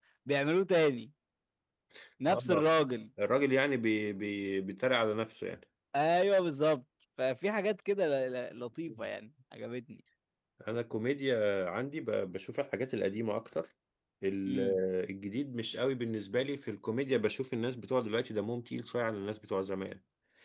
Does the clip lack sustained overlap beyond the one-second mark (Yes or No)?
Yes